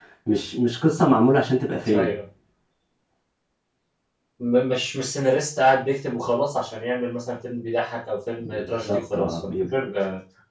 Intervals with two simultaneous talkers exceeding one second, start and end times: 8.4-9.7

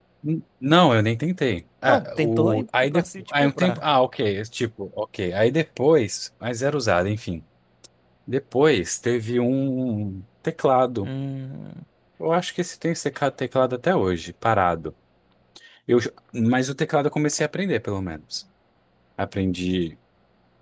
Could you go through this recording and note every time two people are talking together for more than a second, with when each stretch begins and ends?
1.9-3.8

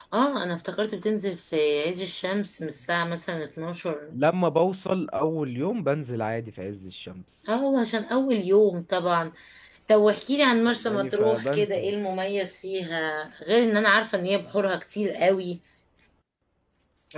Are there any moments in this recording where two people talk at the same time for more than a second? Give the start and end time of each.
10.7-11.9

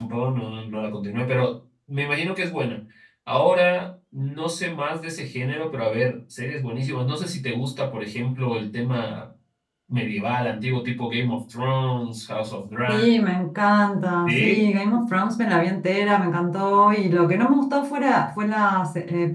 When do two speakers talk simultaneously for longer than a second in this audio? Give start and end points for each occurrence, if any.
none

